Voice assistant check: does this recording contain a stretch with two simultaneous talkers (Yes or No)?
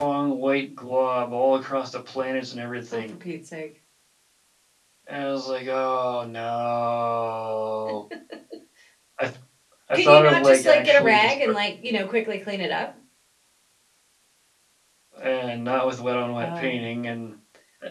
Yes